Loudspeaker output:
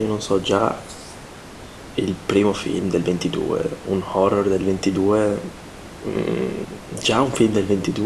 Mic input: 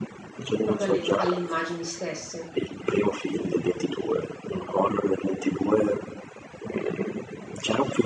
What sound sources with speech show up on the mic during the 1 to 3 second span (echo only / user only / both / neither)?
both